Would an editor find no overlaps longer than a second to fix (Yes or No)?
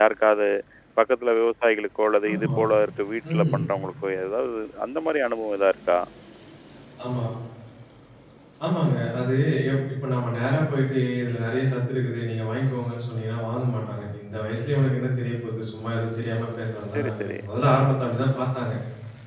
Yes